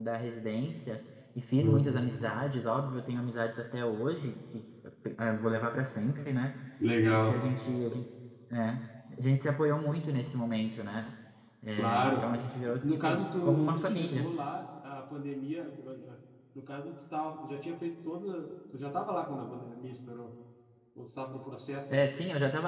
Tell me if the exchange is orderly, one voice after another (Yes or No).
No